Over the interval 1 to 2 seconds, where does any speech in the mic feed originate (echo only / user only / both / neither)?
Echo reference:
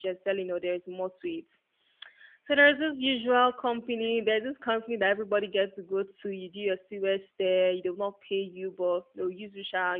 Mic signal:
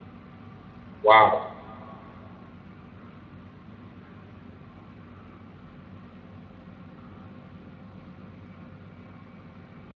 user only